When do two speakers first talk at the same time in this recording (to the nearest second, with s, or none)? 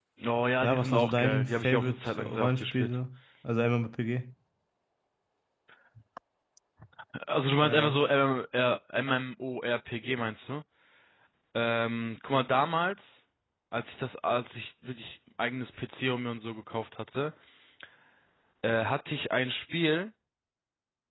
1 s